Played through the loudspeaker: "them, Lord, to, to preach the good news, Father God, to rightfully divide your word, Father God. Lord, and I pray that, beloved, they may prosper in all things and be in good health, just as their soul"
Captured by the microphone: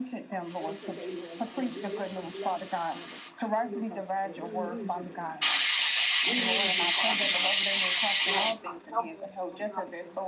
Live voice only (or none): on today, Lord God, and we loose your blessings, Father God. Be with us, Lord. We need you, Lord God. We need you, Father God. Lord God, help us, Lord God, to